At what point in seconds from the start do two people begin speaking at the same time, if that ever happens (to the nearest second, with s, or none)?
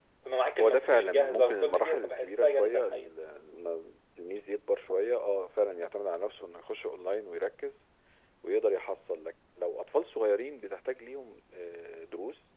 1 s